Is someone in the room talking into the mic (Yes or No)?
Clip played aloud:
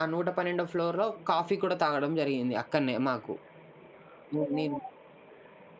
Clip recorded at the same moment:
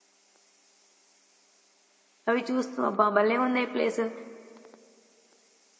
Yes